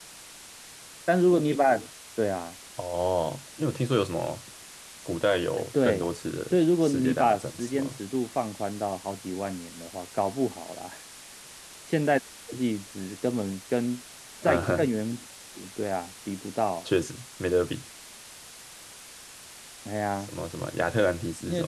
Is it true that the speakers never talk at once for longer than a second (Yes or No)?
No